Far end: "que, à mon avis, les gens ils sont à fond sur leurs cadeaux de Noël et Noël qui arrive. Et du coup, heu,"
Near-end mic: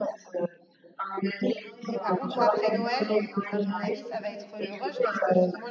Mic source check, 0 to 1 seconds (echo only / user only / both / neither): echo only